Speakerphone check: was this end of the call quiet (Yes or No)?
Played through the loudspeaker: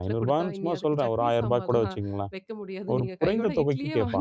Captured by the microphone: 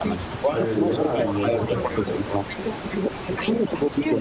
No